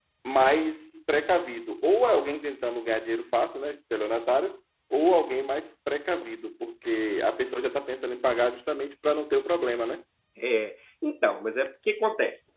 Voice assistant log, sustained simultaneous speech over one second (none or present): none